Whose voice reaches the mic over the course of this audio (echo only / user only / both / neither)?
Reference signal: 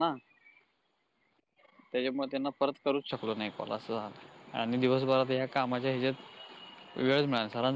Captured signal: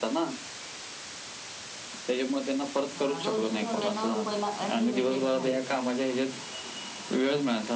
both